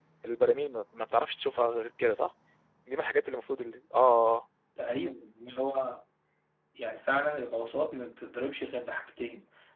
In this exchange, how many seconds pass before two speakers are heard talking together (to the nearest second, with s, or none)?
none